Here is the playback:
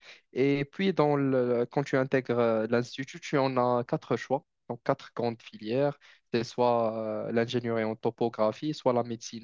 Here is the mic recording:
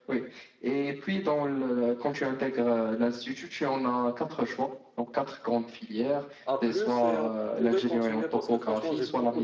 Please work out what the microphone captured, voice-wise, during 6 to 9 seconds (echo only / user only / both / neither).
both